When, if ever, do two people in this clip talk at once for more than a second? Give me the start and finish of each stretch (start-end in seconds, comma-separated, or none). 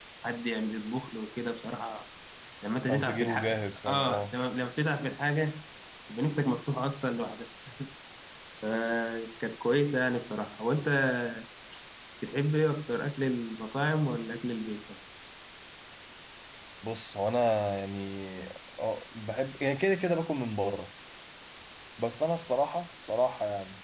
2.9-4.3